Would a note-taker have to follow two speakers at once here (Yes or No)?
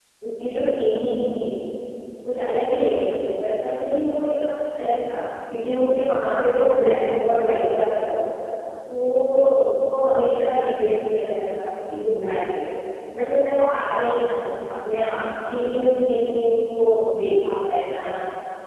No